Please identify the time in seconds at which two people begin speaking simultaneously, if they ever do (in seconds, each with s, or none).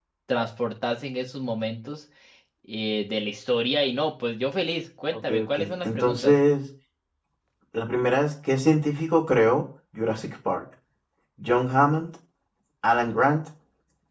5.1 s